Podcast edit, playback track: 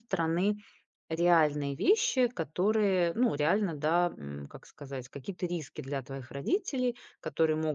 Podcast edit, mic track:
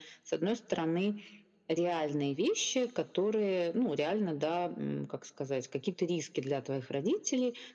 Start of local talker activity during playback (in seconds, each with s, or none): none